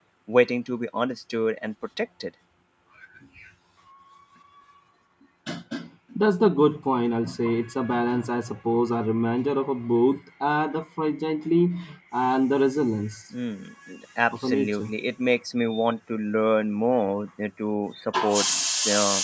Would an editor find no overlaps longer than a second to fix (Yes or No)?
Yes